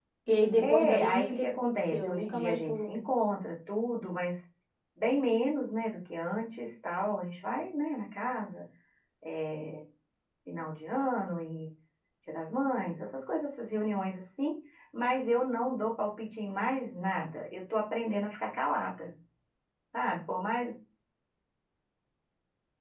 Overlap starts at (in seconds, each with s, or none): 0.6 s